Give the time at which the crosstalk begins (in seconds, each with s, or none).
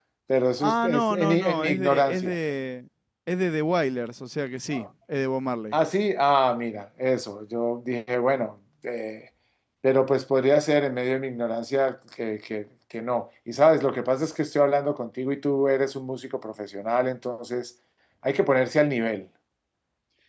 0.6 s